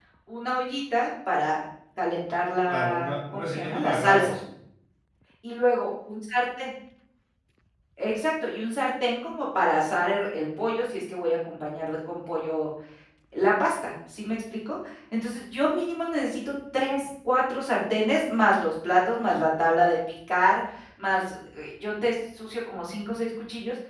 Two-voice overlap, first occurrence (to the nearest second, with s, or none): 3 s